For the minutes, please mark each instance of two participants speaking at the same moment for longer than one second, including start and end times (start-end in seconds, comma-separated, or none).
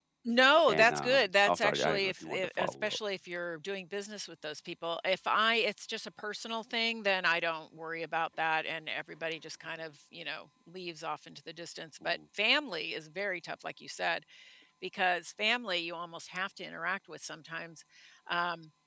0.7-3.0